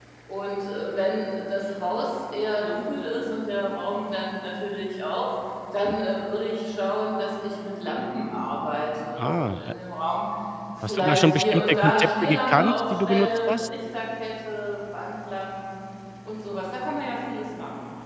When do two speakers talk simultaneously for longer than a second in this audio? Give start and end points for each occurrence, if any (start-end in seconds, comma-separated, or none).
10.9-13.7